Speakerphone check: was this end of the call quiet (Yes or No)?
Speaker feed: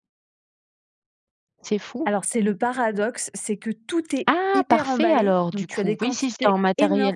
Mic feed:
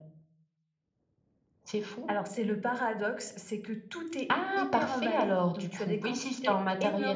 Yes